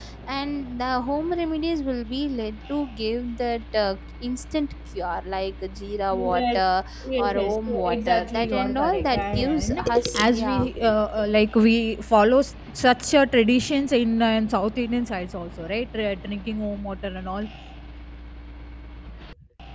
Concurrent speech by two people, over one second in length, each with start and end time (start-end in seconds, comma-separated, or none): 7.0-10.6